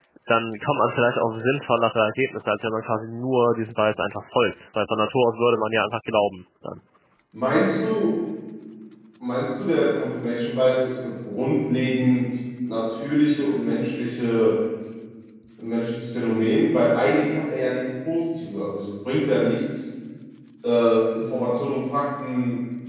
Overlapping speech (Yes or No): No